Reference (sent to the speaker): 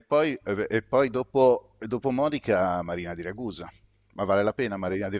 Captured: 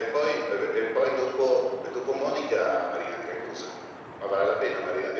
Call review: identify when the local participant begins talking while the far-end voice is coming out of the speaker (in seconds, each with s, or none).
none